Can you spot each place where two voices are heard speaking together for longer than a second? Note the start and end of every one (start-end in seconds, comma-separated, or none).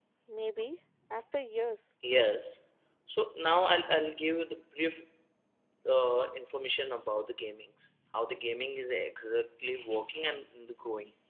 none